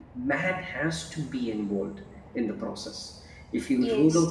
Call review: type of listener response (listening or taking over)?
listening